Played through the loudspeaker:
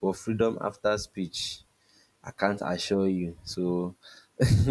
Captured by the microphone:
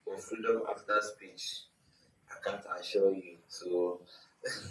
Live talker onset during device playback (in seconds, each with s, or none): none